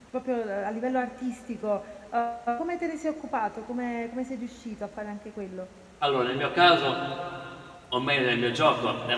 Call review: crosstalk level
none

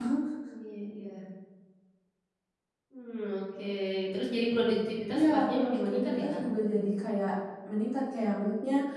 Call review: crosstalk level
present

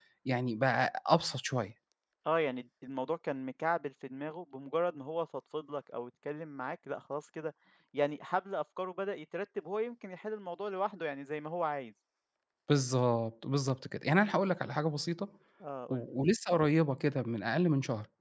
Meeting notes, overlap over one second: none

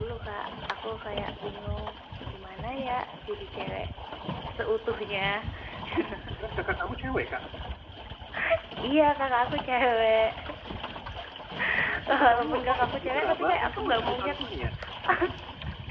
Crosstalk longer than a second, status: present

